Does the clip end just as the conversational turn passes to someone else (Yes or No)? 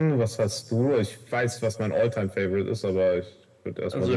Yes